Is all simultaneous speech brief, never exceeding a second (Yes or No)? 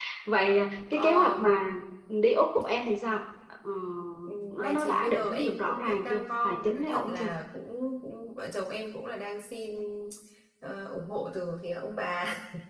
No